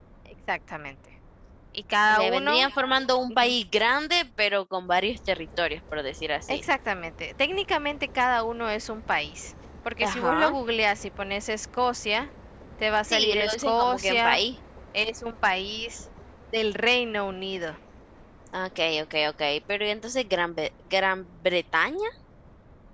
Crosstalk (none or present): present